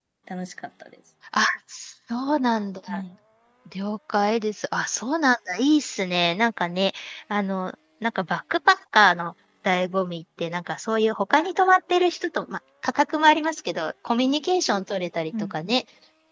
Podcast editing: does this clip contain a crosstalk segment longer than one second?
No

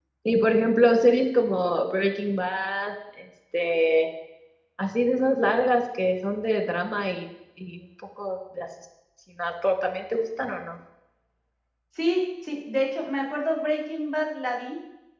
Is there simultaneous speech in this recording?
No

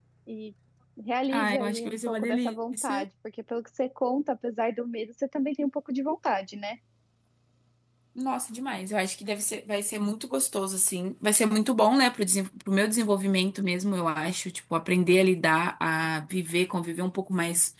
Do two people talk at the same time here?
Yes, from 1.3 s

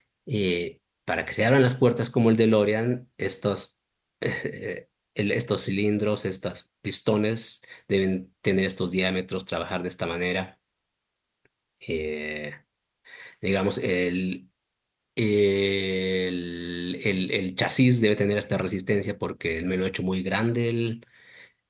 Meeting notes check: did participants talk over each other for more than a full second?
No

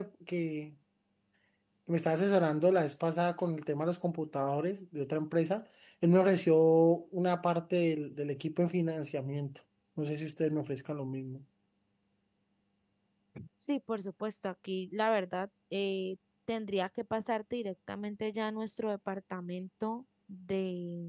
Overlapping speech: No

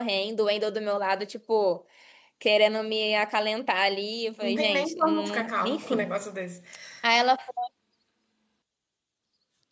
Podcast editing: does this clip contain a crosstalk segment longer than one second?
Yes, from 4.4 s

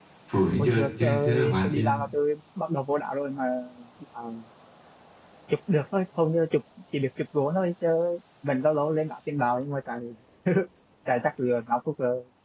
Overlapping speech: Yes, from 0.6 s

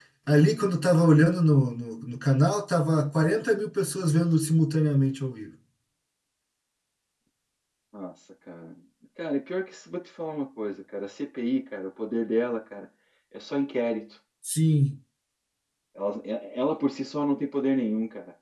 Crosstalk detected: No

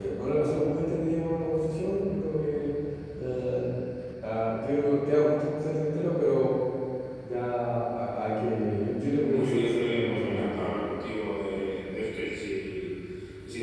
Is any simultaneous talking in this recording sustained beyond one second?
Yes, from 9.3 s

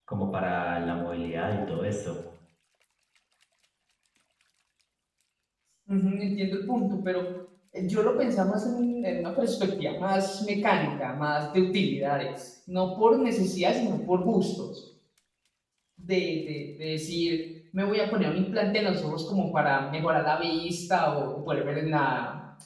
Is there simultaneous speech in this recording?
No

